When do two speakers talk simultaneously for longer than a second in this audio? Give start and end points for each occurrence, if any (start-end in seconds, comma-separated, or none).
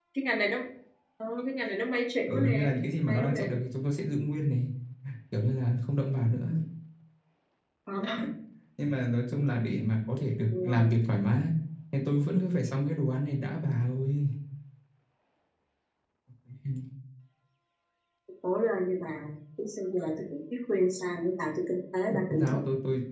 none